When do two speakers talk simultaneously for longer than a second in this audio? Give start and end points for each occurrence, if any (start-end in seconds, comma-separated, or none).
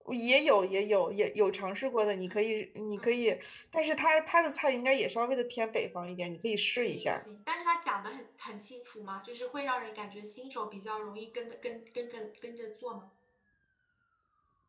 none